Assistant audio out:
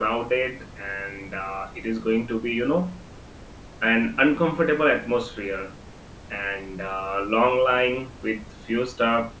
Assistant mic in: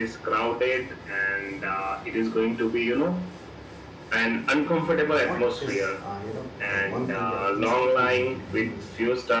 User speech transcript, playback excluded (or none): what is uh, you know the one thing that instantly make you leave a store